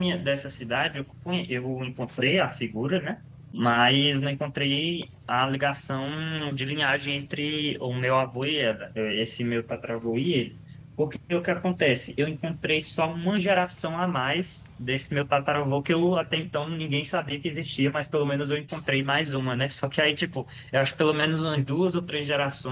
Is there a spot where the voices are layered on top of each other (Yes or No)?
No